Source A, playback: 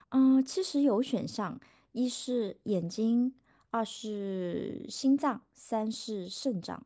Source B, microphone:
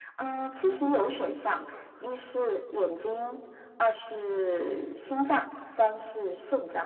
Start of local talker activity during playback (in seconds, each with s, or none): none